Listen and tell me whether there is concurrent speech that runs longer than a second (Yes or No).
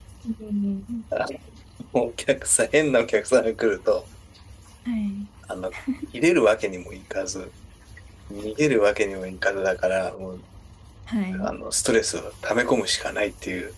No